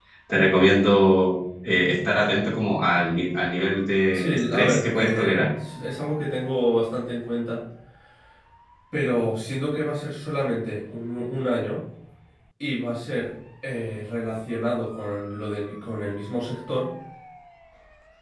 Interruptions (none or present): present